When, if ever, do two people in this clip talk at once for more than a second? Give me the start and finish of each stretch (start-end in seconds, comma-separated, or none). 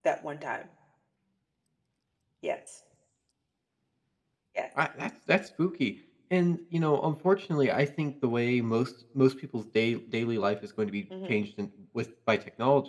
none